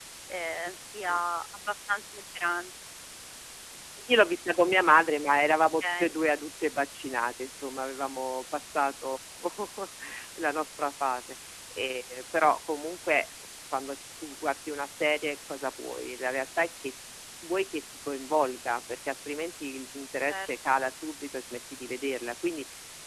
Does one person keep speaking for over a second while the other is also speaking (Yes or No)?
No